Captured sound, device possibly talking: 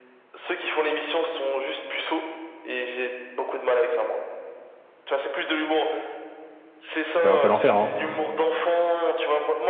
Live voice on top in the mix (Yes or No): Yes